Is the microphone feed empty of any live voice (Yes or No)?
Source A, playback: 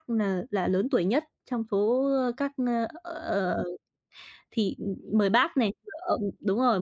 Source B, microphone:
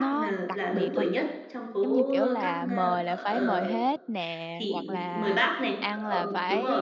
No